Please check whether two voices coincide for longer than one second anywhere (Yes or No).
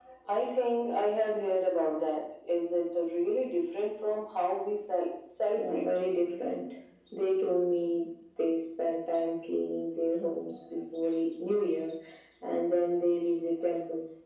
No